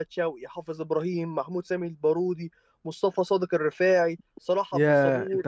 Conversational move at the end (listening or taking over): taking over